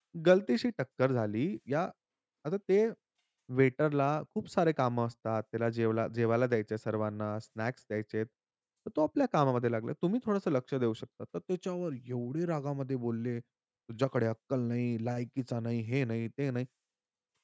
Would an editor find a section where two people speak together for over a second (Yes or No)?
No